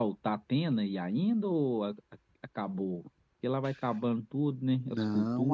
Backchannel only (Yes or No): No